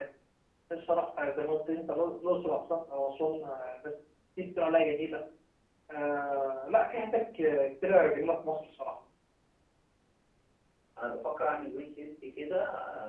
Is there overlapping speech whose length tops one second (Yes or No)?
No